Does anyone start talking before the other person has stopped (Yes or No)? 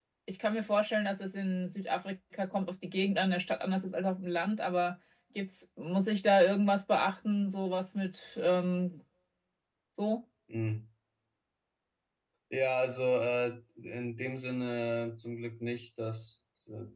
No